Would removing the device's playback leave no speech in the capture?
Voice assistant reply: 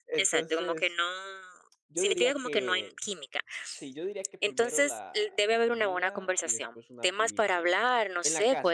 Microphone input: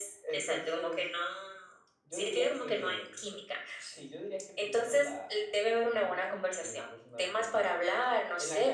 Yes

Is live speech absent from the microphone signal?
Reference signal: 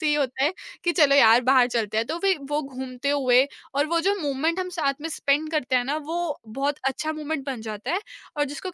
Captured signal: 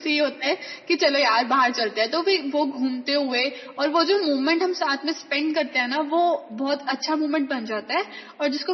Yes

